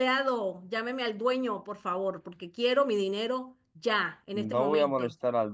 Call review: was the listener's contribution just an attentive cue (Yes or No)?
No